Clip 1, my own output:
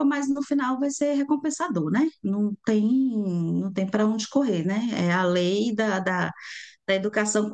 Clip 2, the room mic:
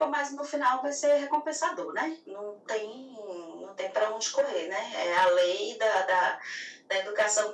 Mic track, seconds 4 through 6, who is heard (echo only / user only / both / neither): echo only